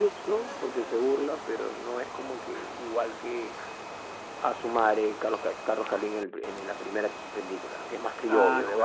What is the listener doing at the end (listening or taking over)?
taking over